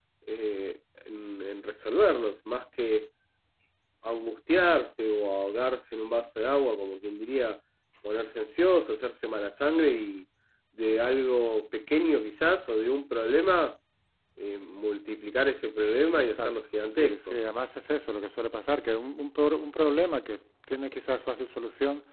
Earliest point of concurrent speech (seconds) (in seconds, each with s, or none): 16.1 s